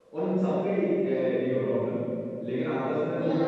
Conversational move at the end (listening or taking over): listening